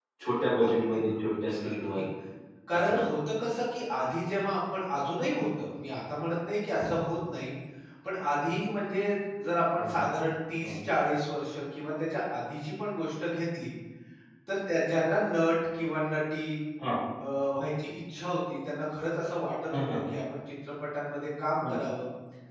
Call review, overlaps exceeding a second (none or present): present